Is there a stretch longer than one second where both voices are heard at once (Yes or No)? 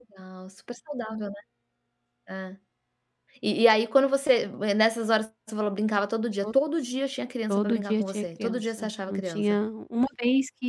Yes